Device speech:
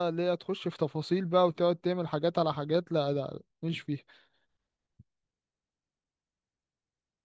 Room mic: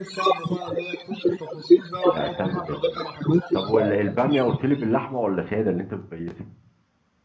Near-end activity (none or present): present